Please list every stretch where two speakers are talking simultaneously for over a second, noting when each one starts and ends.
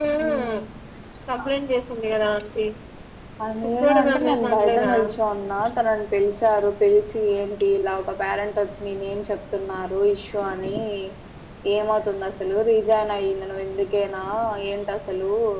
3.6-4.9

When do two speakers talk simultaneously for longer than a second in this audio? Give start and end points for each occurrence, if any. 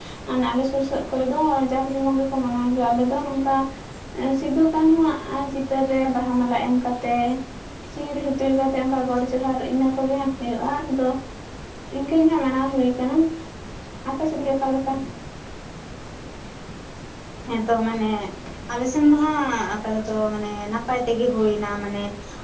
none

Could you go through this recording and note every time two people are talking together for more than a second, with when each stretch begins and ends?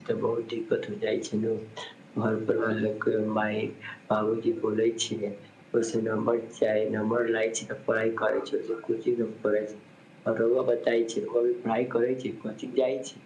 none

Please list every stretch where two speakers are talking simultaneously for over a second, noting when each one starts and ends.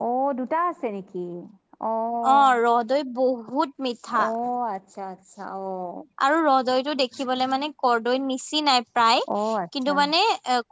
none

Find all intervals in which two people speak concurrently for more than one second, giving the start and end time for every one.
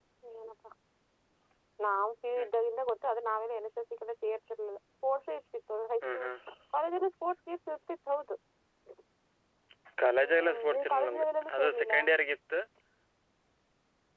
10.2-11.9

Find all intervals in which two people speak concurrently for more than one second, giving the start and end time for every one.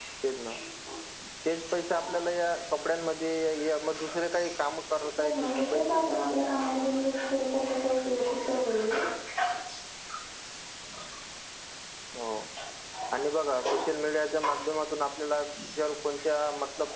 5.2-6.5

